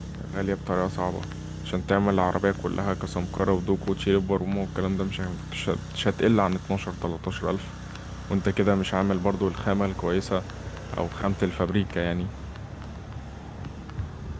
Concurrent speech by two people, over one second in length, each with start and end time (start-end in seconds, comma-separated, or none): none